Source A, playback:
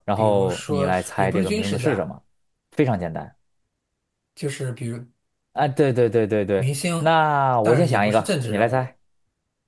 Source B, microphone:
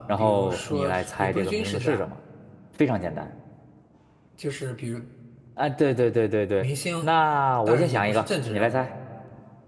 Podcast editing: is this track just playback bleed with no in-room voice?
Yes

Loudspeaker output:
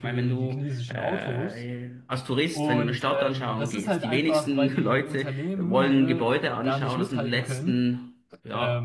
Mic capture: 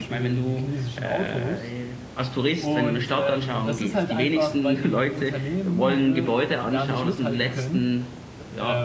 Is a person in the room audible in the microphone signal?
No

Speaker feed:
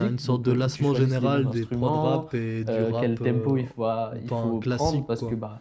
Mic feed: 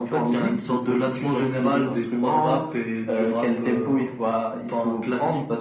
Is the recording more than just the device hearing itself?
No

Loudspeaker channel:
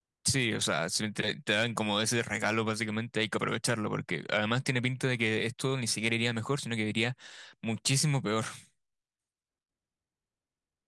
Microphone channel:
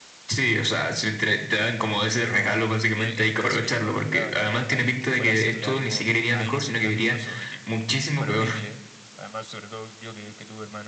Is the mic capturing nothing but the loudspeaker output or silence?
No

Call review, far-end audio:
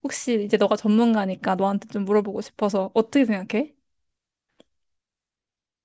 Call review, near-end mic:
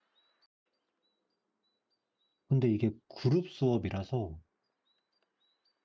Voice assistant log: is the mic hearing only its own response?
No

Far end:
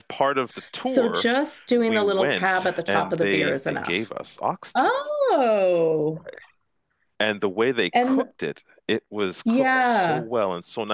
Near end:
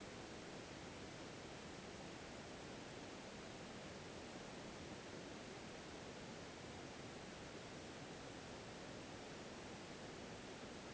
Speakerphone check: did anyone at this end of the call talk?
No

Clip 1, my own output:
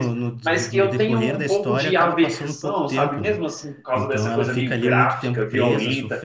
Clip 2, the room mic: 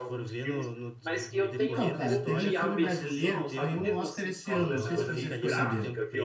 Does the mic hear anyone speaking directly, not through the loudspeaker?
Yes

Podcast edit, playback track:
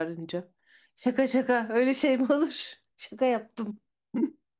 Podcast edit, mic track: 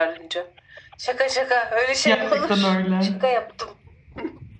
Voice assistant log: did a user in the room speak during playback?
Yes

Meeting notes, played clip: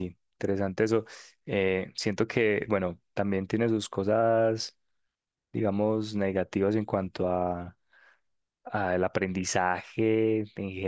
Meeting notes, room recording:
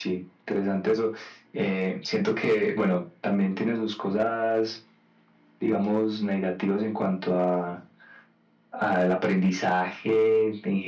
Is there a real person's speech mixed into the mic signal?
No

